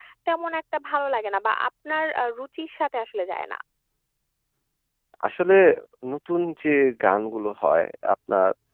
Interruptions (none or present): none